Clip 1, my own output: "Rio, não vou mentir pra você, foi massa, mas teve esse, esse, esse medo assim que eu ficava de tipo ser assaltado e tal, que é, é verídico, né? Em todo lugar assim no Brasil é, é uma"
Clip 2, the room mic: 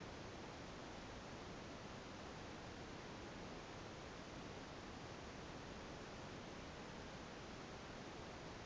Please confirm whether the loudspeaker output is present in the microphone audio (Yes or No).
No